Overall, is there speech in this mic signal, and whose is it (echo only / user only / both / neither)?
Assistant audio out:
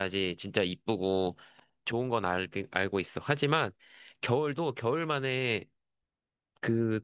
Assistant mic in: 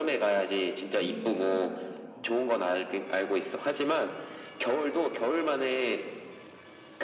both